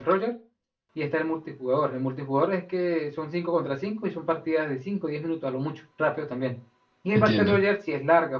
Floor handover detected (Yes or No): No